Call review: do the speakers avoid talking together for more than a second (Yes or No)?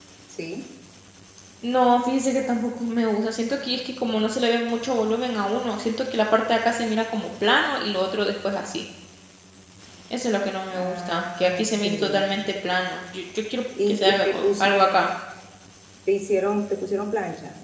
No